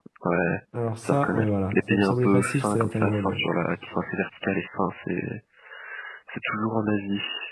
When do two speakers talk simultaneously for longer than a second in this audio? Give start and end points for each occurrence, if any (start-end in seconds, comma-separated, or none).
1.0-3.4